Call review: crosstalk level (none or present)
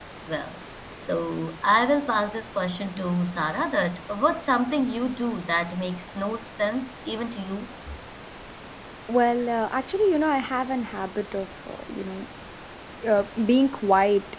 none